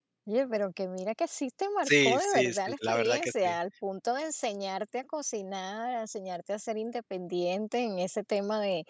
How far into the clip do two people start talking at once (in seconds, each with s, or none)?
1.9 s